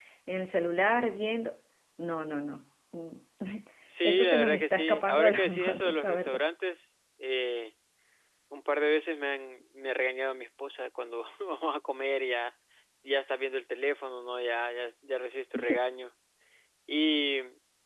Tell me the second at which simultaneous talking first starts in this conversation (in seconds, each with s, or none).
4.0 s